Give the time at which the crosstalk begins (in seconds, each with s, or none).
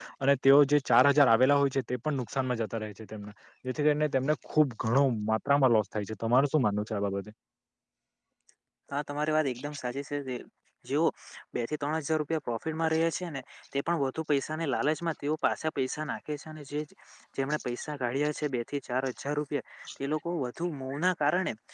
none